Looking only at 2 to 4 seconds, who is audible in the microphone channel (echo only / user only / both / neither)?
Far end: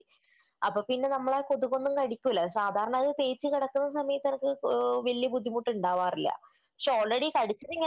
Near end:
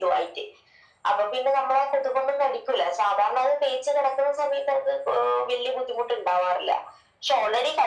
echo only